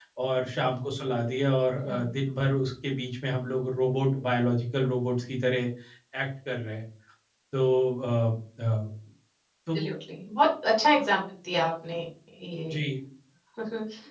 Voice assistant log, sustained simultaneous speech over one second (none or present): none